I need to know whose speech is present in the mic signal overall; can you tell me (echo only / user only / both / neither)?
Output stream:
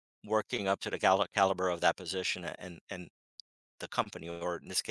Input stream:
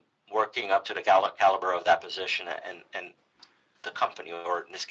echo only